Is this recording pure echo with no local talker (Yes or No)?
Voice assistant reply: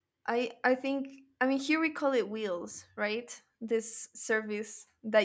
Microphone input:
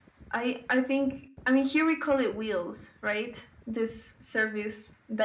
Yes